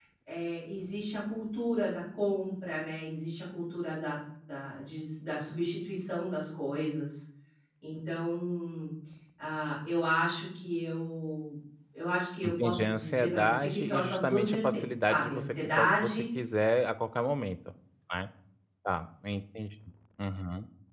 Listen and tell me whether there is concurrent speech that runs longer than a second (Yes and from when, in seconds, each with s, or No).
Yes, from 12.5 s